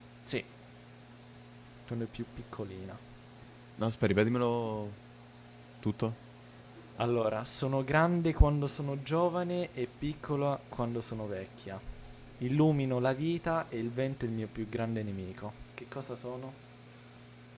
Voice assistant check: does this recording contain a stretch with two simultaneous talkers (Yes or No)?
No